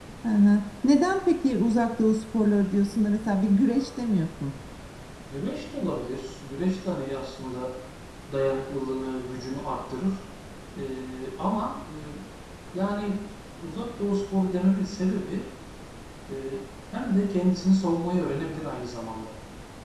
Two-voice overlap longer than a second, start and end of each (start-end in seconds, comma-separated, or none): none